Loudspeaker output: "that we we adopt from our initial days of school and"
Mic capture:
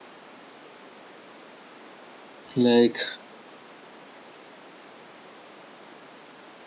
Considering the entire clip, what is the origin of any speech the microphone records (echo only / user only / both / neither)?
user only